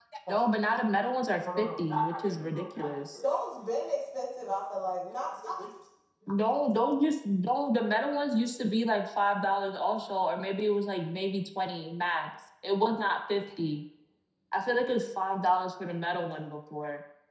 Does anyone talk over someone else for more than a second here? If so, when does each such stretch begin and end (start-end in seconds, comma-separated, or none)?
1.6-3.2